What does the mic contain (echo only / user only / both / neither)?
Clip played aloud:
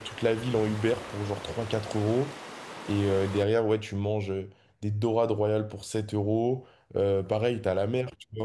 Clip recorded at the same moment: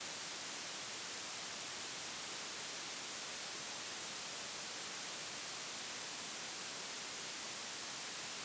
neither